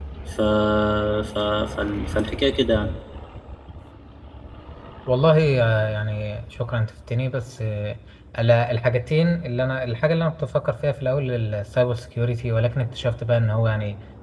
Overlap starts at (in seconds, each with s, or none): none